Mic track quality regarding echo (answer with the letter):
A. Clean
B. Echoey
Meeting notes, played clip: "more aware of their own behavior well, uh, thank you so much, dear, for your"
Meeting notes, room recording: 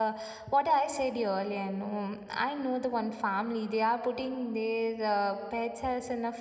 A